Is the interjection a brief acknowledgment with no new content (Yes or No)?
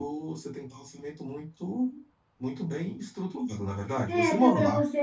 No